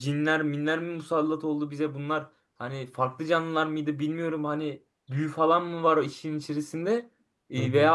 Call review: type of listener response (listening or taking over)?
listening